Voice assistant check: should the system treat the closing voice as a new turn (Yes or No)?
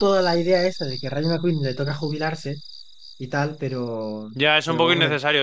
Yes